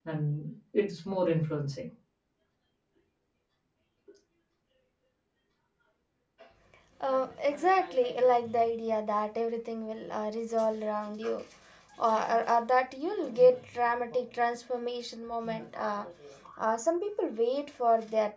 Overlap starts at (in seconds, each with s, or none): none